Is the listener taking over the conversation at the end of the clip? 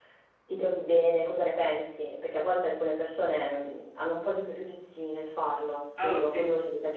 Yes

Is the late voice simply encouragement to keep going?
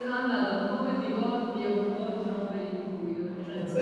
No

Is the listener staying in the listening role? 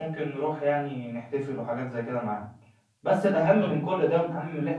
Yes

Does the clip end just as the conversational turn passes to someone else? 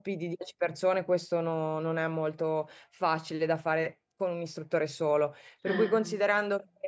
No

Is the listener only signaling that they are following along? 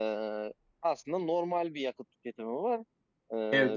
Yes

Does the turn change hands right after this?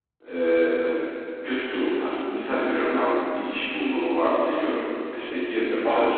No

